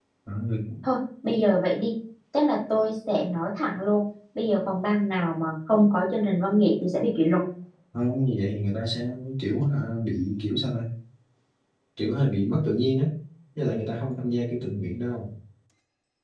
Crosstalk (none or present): none